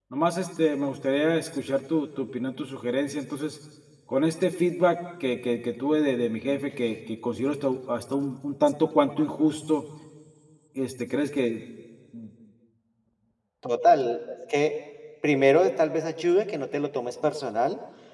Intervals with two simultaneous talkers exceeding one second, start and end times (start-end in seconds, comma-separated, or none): none